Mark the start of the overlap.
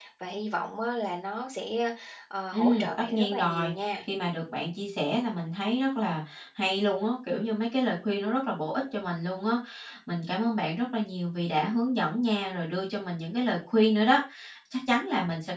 2.5 s

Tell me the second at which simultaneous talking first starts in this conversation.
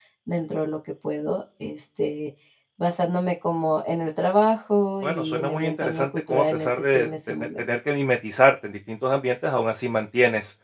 5.0 s

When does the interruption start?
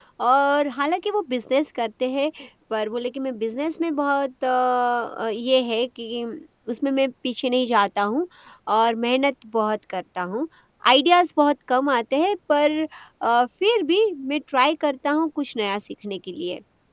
none

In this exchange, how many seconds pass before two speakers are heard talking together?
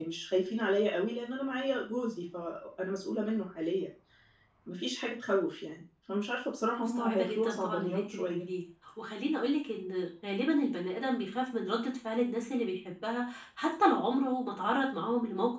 6.8 s

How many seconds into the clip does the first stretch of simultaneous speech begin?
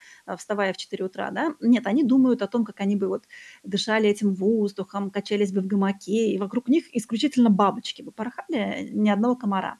none

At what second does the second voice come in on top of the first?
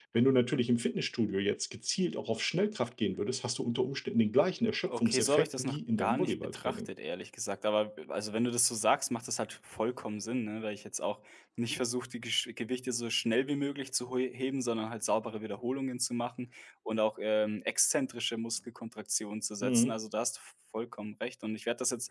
4.8 s

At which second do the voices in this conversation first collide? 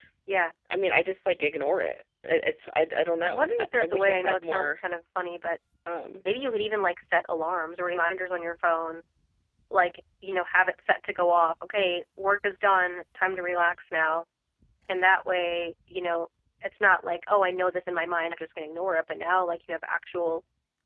3.2 s

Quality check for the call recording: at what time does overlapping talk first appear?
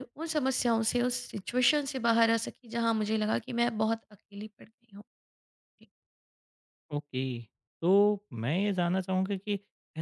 none

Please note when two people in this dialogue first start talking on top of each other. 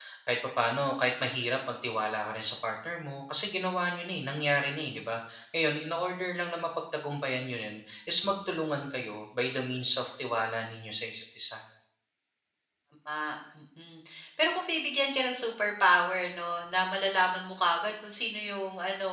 none

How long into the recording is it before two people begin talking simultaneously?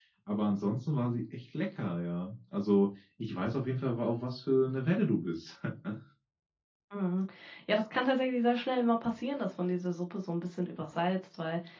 none

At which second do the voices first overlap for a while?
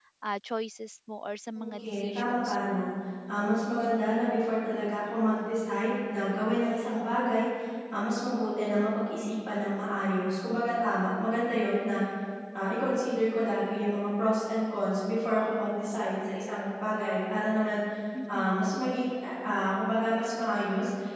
1.6 s

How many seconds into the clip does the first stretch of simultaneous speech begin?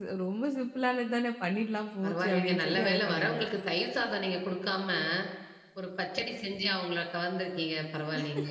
2.0 s

